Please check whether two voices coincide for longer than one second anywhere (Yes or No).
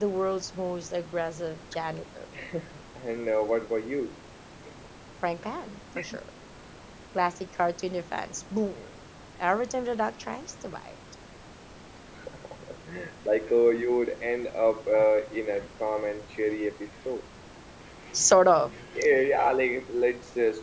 No